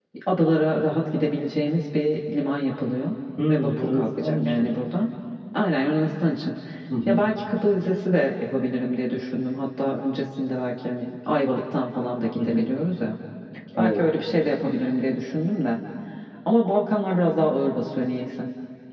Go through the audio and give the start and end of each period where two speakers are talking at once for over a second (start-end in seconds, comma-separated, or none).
3.5-4.7